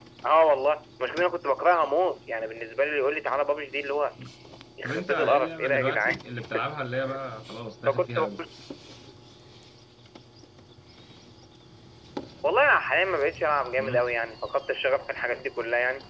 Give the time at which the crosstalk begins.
5 s

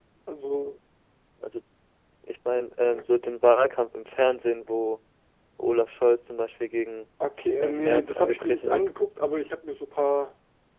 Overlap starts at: 8 s

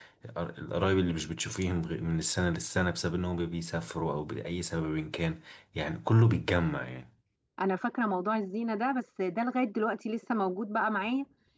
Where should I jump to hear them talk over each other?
none

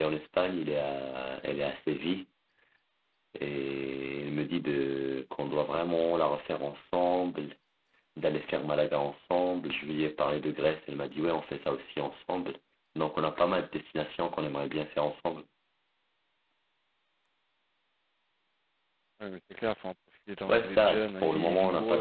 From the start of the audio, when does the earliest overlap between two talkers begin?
20 s

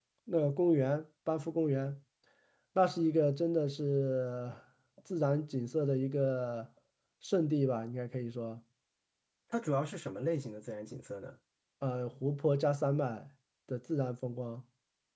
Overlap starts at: none

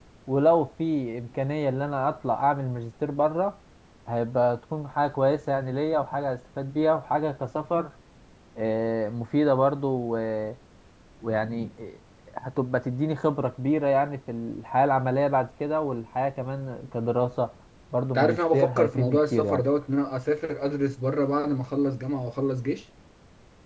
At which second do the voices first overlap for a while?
18 s

